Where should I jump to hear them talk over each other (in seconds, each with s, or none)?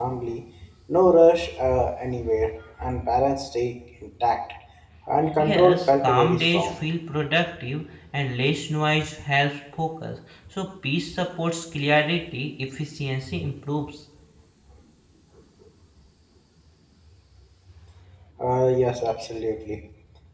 5.4 s